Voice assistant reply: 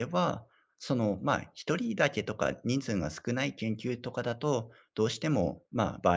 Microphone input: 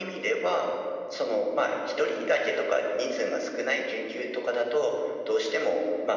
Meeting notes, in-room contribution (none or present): none